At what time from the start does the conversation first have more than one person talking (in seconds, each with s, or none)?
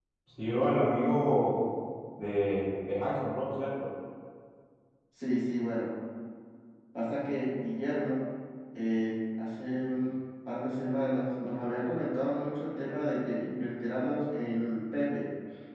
none